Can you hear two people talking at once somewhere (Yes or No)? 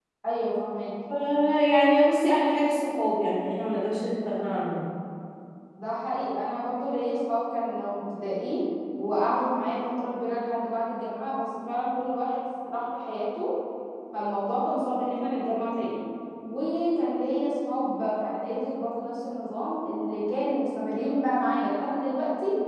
No